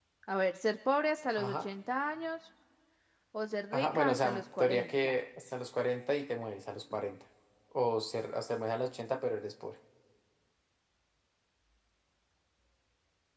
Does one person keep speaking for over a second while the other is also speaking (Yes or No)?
Yes